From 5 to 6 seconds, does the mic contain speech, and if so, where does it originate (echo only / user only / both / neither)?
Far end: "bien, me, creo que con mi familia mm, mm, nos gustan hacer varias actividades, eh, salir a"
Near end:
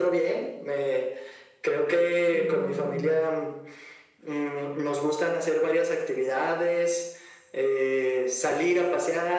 echo only